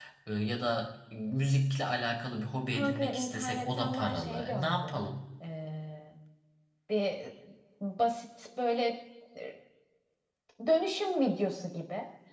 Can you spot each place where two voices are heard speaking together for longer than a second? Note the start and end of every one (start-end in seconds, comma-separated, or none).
2.8-5.0